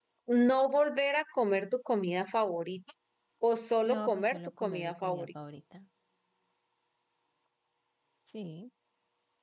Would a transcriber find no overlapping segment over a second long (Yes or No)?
No